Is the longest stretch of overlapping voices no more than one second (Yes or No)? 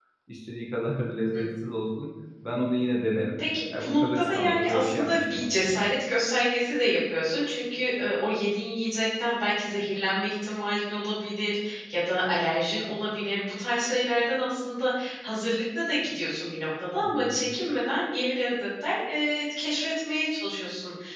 No